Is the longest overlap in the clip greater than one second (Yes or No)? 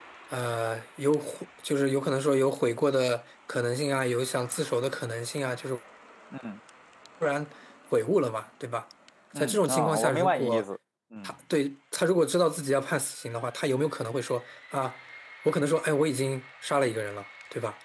Yes